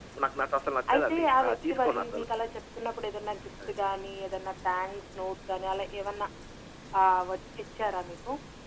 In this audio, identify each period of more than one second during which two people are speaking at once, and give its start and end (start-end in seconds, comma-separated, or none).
0.9-2.3